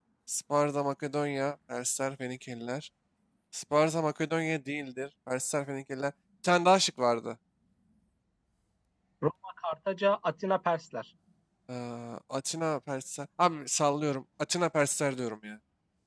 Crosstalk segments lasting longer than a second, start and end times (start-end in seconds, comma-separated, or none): none